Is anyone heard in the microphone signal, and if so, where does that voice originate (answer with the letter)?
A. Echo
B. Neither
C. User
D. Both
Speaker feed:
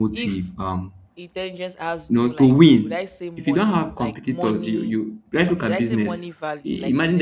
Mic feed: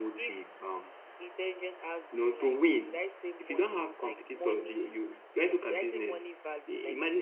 A